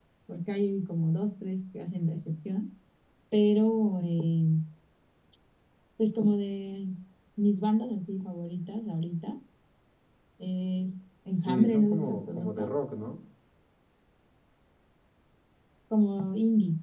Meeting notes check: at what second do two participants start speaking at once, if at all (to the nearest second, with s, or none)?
11 s